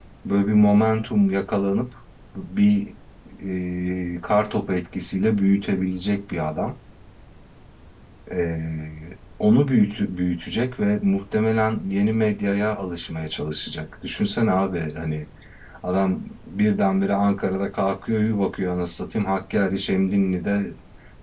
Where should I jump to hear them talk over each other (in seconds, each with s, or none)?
none